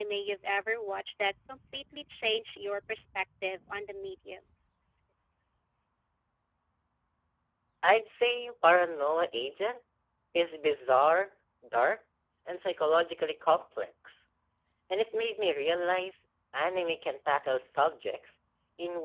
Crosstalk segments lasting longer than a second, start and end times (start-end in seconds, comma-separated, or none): none